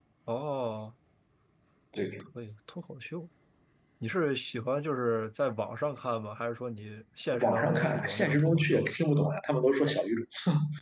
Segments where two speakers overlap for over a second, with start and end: 7.4-9.0

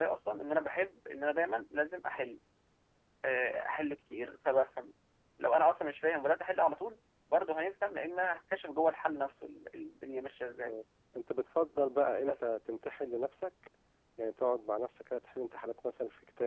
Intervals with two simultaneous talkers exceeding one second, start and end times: none

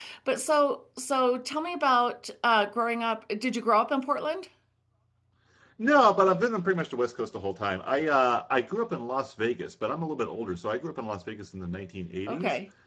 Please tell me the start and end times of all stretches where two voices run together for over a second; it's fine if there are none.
none

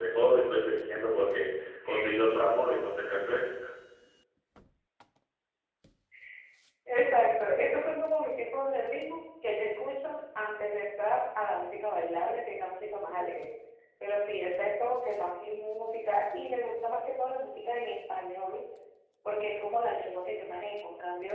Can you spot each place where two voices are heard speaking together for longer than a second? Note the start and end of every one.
none

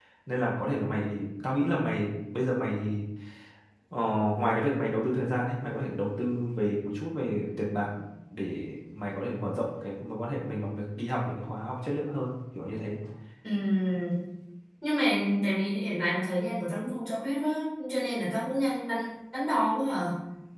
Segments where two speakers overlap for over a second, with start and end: none

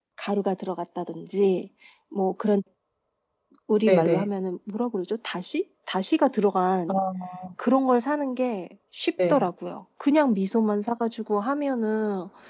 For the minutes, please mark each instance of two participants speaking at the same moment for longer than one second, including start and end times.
none

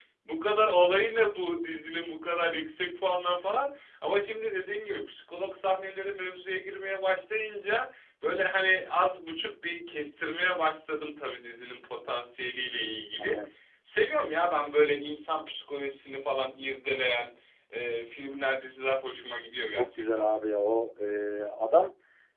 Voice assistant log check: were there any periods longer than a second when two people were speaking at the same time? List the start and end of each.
none

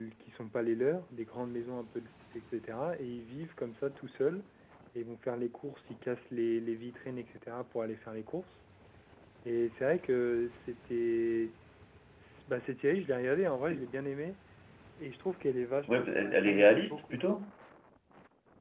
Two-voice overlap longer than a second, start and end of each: 15.9-17.2

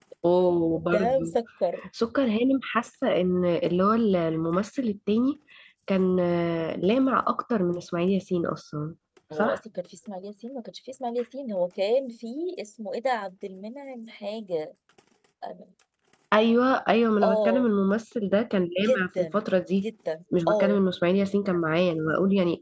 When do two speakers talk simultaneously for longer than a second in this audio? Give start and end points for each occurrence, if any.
none

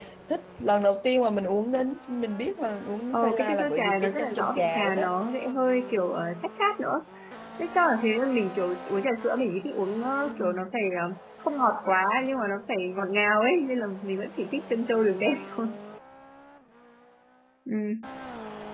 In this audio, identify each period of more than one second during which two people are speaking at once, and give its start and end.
3.1-5.1

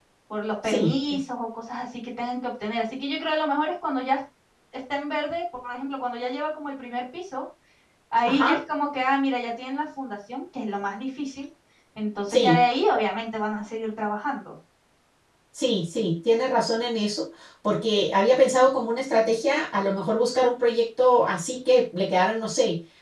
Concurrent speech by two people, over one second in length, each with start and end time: none

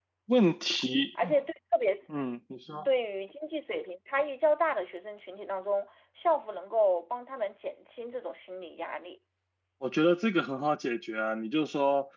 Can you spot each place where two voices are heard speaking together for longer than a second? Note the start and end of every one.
none

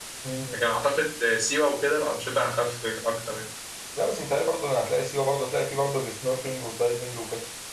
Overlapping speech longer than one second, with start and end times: none

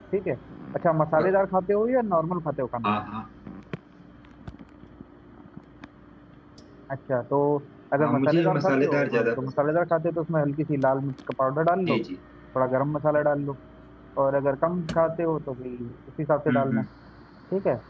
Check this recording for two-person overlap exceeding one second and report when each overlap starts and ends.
8.0-9.5

